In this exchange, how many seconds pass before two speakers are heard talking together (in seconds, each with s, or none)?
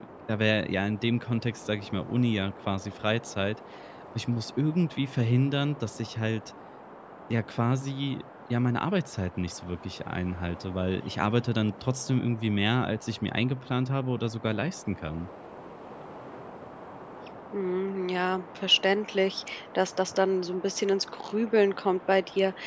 none